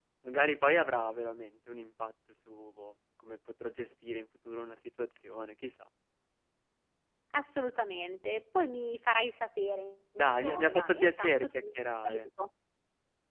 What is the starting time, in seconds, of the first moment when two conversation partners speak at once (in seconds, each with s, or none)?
10.2 s